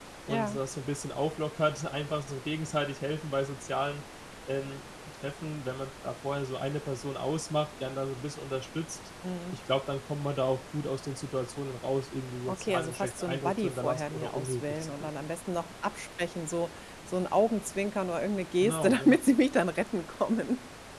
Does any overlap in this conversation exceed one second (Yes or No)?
Yes